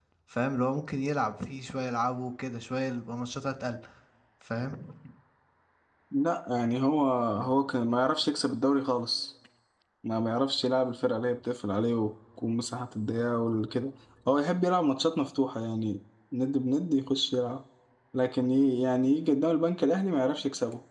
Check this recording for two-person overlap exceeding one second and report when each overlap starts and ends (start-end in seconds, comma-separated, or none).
none